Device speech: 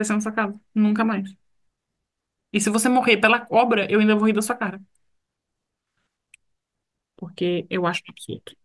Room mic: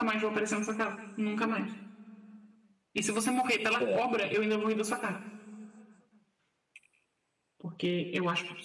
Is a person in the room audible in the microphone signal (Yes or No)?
Yes